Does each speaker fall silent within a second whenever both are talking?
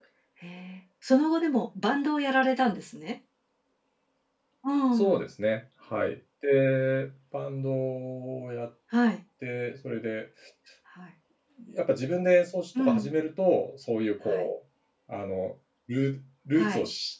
Yes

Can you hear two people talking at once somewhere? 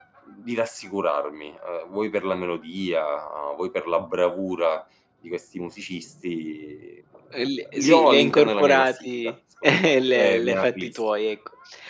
Yes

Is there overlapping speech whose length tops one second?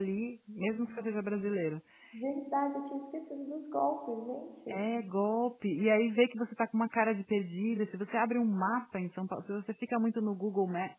No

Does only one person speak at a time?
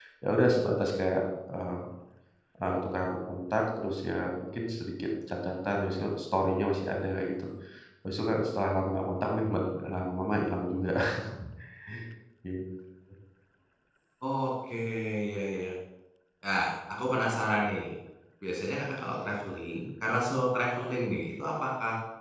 Yes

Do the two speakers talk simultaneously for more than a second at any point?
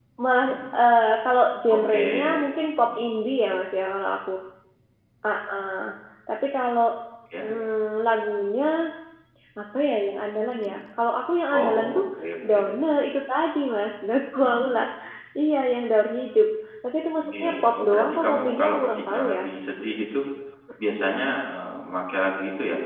Yes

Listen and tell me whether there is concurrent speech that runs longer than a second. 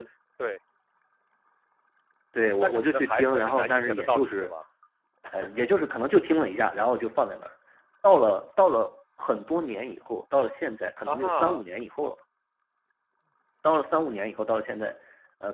Yes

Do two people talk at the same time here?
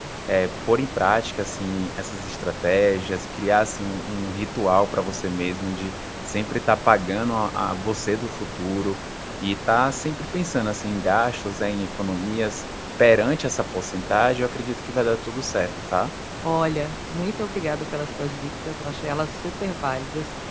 No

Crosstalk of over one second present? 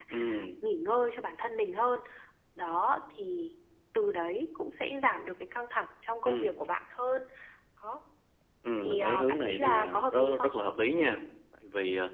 Yes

